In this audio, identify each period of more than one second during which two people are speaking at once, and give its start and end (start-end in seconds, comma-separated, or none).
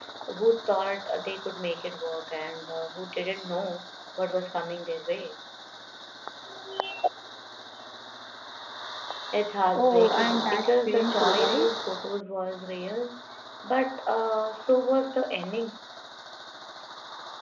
9.7-11.7